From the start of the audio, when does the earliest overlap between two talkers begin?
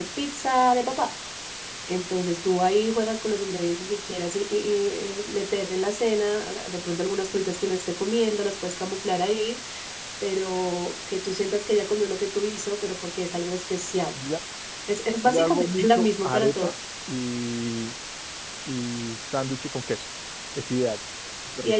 15.3 s

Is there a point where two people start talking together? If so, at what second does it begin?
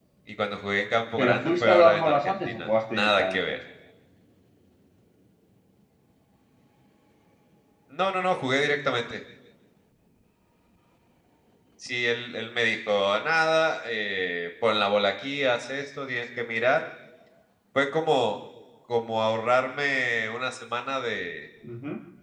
1.2 s

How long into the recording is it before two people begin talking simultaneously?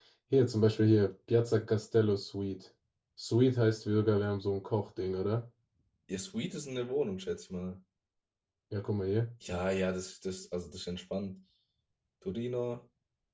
none

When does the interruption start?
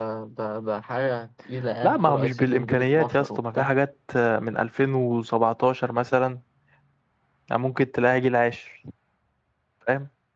1.8 s

